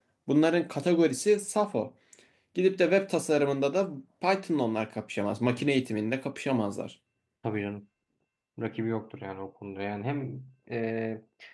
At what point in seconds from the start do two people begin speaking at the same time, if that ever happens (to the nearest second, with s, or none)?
none